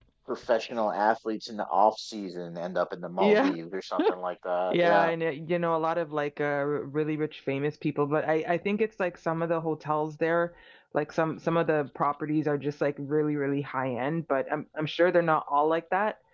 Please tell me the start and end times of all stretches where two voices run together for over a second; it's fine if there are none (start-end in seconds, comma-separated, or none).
none